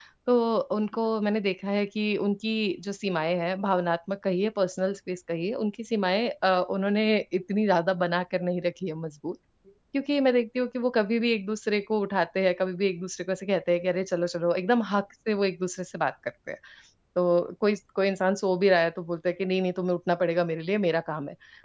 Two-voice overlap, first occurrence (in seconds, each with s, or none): none